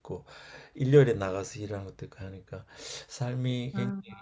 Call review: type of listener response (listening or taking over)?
listening